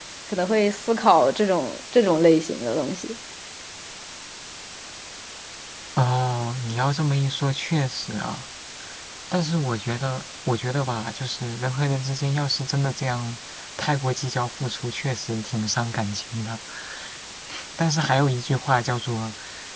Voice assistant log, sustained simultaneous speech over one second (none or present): none